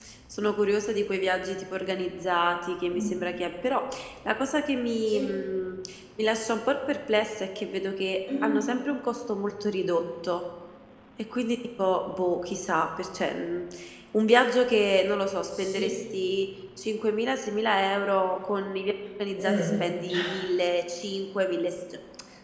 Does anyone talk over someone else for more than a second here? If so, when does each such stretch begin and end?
none

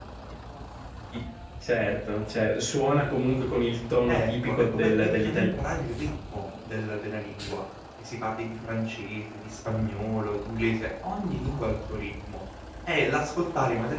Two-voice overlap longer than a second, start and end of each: 4.1-5.5

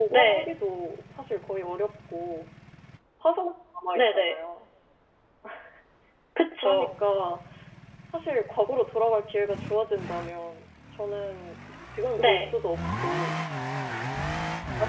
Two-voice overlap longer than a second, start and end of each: none

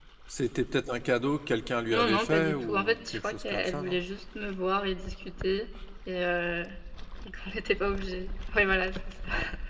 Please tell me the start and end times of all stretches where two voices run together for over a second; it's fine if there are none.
1.9-4.0

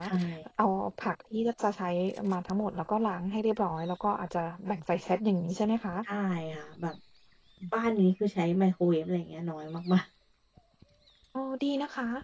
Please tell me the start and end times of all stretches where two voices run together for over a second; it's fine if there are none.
none

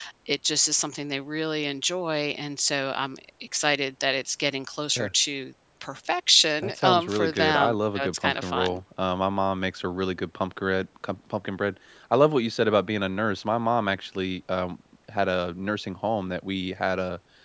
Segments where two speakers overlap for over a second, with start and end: 6.6-8.8

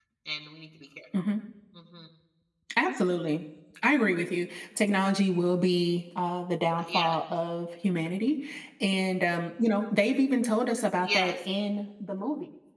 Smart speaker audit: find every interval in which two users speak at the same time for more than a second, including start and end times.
none

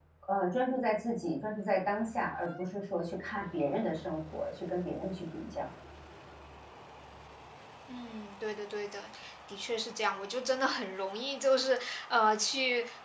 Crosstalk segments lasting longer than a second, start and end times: none

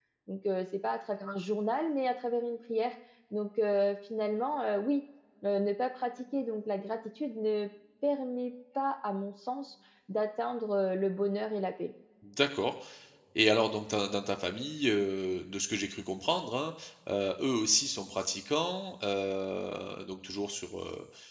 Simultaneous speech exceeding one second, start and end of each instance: none

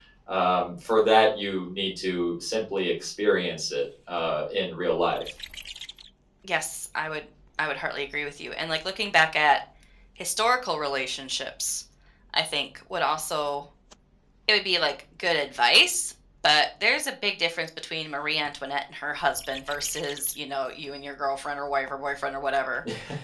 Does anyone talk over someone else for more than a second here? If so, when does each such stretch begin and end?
none

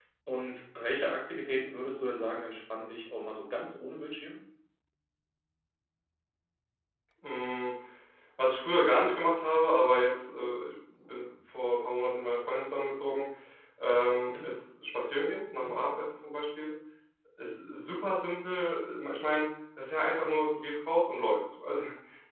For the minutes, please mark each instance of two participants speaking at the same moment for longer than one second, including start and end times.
none

